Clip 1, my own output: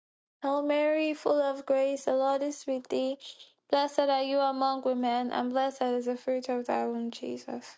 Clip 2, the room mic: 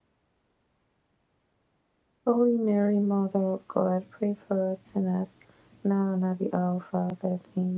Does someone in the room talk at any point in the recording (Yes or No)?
Yes